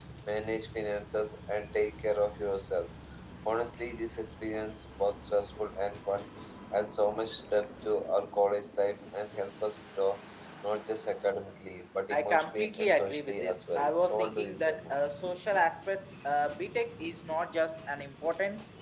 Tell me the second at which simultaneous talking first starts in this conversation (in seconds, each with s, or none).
12.1 s